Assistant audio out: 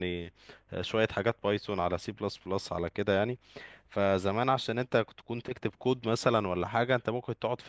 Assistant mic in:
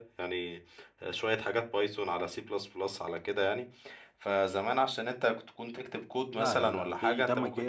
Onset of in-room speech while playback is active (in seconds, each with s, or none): 6.3 s